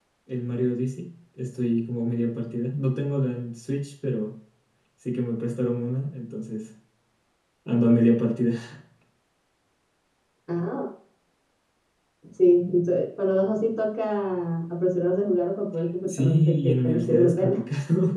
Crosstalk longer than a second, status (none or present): present